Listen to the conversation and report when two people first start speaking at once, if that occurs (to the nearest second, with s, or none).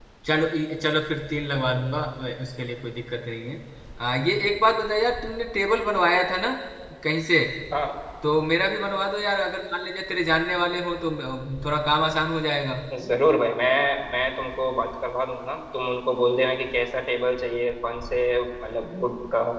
none